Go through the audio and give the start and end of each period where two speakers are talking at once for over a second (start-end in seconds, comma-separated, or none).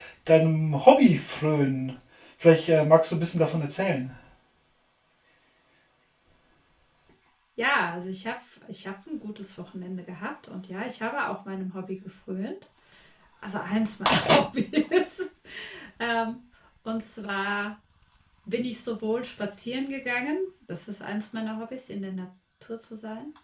none